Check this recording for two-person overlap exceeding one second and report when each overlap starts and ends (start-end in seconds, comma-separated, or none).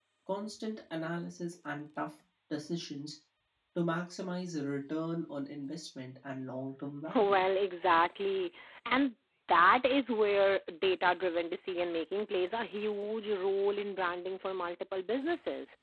none